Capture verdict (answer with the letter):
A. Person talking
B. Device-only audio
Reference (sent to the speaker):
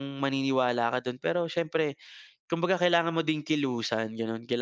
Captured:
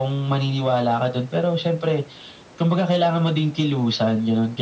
B